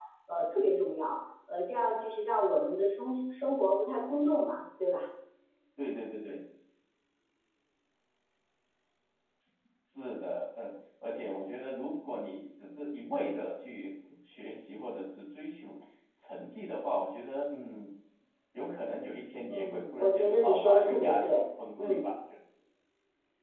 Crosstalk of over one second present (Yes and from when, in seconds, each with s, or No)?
Yes, from 19.5 s